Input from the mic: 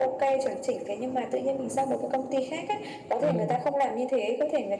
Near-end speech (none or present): present